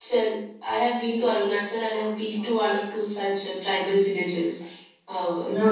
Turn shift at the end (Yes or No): No